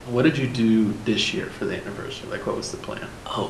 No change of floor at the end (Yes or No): No